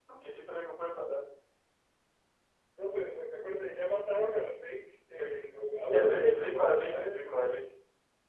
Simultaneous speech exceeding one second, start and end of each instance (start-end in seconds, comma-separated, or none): 5.9-7.3